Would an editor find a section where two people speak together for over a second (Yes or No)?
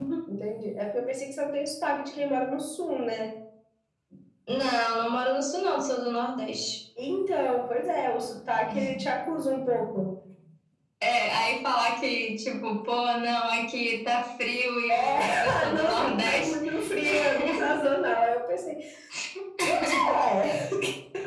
Yes